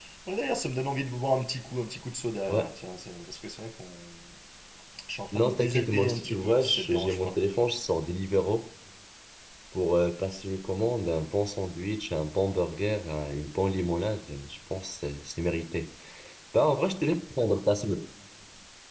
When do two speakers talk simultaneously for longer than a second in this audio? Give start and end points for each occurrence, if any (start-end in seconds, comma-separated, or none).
5.3-7.4